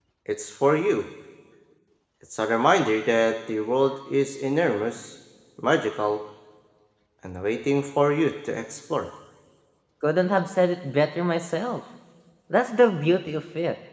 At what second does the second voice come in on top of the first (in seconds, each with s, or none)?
none